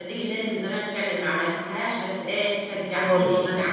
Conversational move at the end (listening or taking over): listening